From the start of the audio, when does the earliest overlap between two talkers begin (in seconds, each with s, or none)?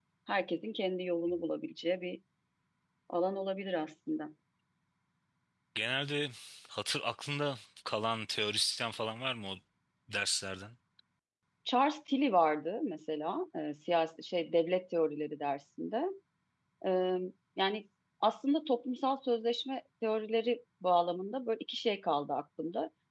none